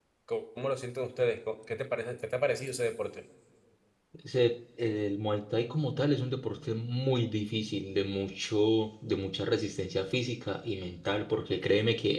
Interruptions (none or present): none